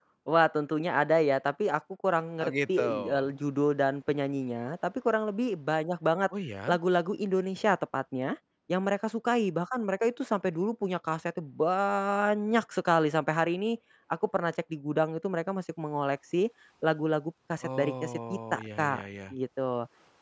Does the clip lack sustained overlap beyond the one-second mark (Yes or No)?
No